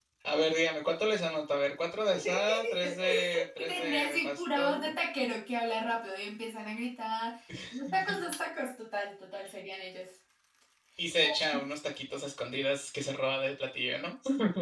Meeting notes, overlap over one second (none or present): present